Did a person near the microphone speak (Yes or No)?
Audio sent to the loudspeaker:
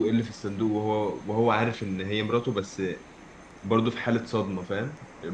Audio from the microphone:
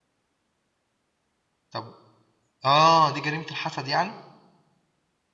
Yes